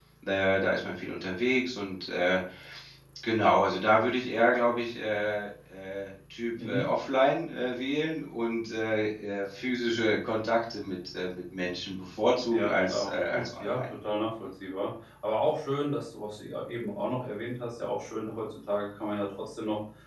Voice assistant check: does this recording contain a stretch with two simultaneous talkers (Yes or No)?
Yes